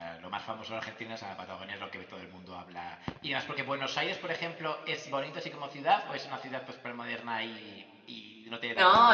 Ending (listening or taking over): taking over